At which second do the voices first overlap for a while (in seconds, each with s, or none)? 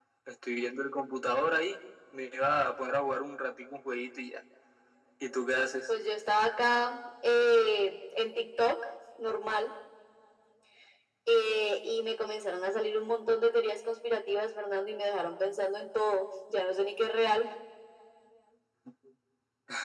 none